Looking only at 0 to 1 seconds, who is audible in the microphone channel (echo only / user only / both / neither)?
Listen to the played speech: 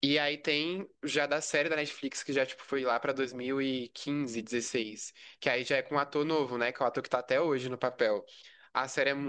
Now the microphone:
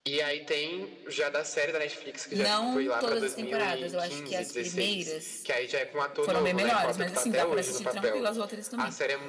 echo only